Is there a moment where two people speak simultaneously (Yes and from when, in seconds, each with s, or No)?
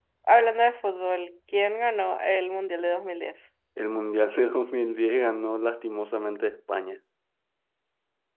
No